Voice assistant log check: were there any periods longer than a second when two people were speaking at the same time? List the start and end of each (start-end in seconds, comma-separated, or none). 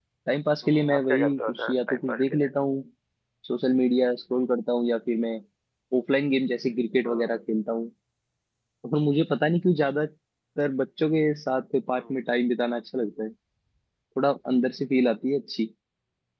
0.6-2.5